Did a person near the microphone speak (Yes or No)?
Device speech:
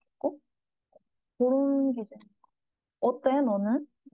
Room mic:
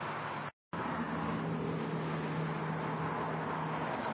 No